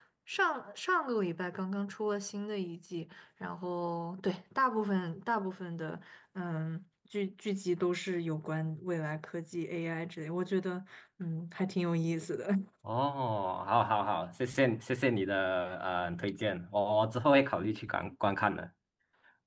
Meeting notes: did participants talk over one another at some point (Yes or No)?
No